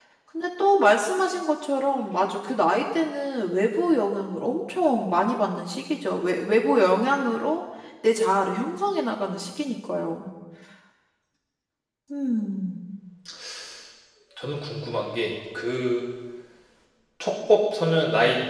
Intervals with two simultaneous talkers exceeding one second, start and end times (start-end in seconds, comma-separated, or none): none